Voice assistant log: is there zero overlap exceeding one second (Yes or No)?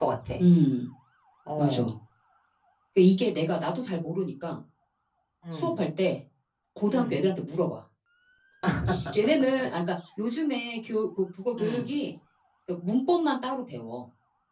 Yes